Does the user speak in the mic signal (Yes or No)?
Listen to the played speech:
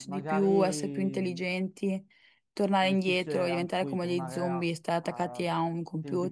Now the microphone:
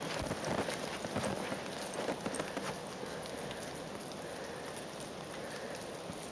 No